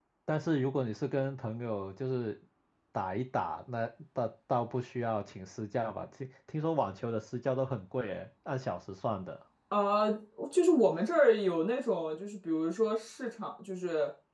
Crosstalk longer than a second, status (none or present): none